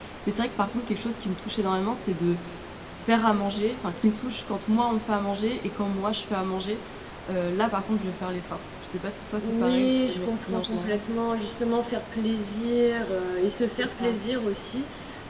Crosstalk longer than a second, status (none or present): present